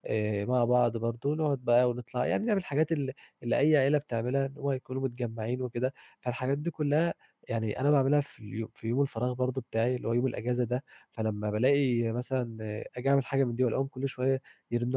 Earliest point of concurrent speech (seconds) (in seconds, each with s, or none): none